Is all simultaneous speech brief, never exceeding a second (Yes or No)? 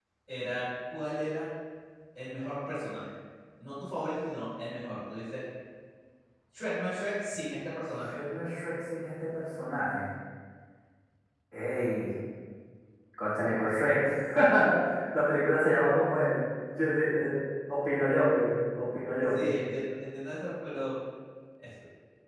Yes